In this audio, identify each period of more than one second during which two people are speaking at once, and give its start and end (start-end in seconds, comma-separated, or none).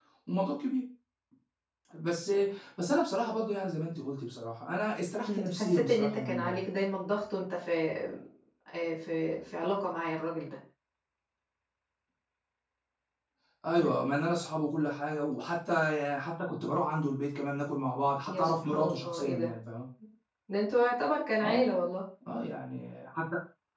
5.3-6.6, 18.3-19.5